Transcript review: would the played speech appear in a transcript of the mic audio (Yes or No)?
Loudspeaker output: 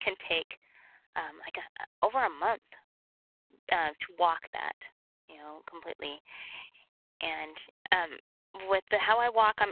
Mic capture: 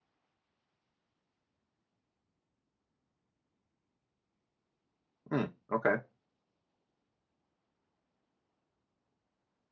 No